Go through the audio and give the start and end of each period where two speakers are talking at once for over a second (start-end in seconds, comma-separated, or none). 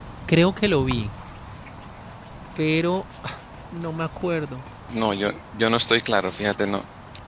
none